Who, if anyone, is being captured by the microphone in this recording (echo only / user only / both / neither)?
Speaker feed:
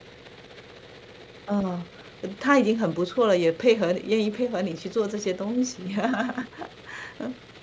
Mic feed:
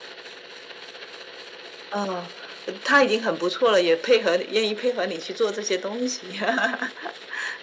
echo only